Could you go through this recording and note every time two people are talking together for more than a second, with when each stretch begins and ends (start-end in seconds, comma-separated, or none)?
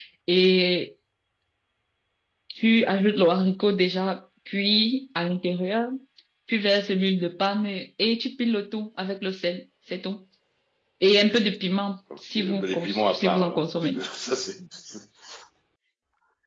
12.3-14.0